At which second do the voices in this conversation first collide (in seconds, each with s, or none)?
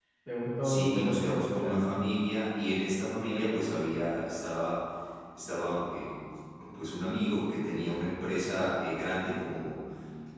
0.6 s